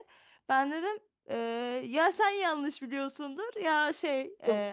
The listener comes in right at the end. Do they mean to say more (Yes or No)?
Yes